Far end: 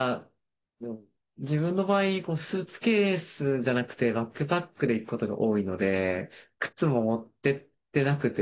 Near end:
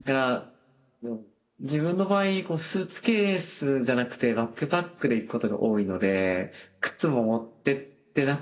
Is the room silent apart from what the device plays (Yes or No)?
Yes